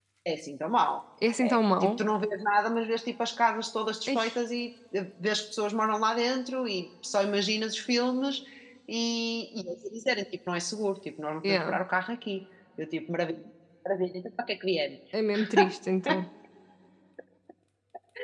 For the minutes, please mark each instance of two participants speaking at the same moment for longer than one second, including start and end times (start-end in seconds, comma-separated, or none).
none